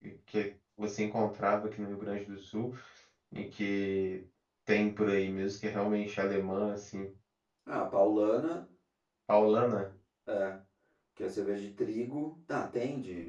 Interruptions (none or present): none